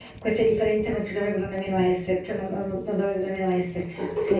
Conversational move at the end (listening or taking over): taking over